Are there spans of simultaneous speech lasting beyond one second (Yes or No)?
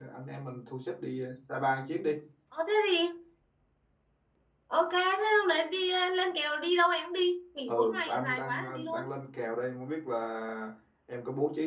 Yes